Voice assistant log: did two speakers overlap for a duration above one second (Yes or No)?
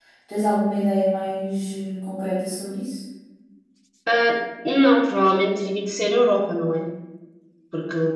No